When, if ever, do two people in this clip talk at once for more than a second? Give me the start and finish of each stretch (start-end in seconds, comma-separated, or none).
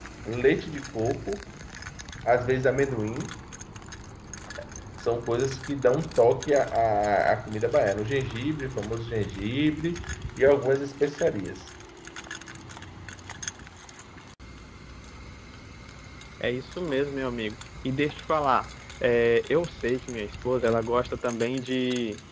none